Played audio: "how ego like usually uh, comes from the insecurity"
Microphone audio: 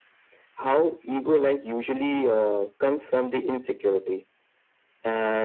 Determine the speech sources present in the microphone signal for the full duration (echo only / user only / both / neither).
echo only